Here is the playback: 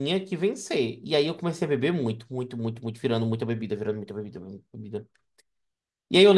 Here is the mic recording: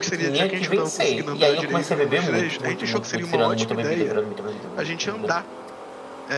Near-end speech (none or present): present